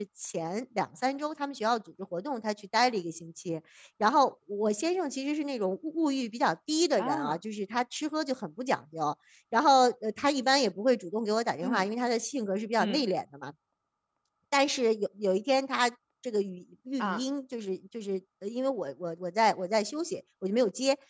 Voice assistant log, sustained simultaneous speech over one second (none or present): none